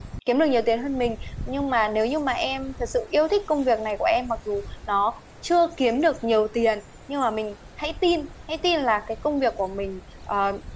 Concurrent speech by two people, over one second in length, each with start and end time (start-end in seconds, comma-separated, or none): none